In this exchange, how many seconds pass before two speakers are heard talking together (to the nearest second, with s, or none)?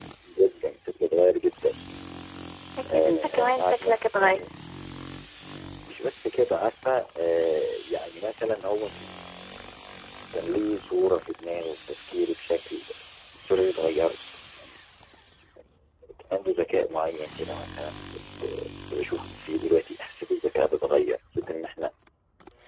3 s